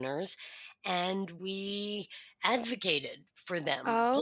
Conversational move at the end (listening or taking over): listening